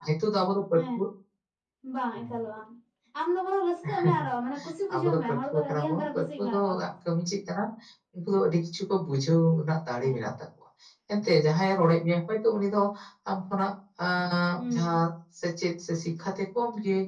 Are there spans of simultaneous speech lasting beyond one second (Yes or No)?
Yes